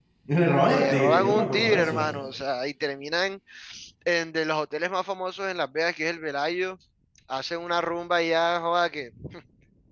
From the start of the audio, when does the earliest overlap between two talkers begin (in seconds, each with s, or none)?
0.7 s